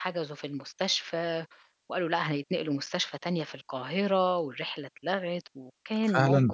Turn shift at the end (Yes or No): Yes